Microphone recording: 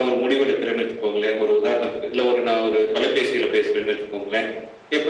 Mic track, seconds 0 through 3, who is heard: echo only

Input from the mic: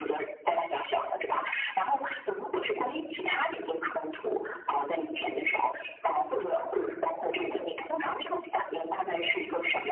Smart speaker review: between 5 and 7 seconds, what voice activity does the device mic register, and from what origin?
echo only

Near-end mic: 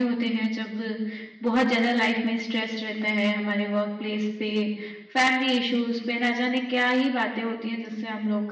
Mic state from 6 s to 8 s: echo only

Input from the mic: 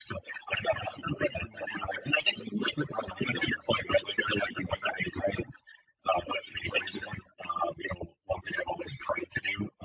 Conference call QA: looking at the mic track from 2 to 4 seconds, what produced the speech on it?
echo only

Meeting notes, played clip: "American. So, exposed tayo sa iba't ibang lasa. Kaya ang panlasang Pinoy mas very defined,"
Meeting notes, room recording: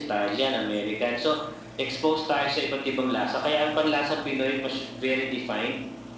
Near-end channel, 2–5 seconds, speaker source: echo only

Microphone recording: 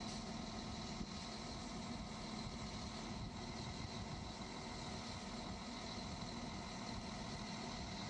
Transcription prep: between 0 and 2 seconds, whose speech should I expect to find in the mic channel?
neither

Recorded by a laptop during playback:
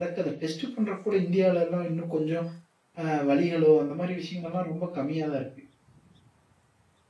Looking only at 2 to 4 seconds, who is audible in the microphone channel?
user only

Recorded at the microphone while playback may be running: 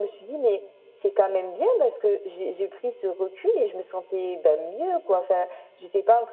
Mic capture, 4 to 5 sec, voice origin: echo only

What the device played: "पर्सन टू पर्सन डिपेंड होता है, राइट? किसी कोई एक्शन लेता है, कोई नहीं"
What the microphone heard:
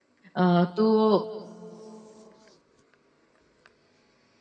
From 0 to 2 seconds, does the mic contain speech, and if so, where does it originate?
user only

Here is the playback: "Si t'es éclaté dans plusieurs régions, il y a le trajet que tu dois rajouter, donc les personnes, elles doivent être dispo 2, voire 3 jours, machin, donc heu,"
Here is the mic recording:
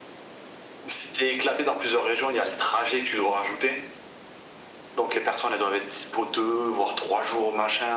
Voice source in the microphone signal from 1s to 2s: echo only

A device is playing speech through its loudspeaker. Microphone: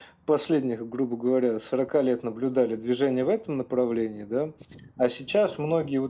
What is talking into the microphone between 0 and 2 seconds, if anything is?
echo only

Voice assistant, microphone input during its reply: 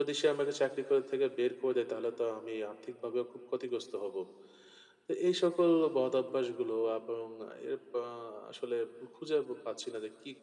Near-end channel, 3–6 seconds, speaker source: echo only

